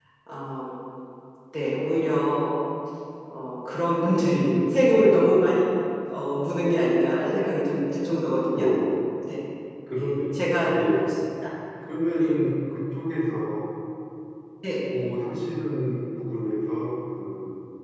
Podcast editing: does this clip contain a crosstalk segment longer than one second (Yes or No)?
No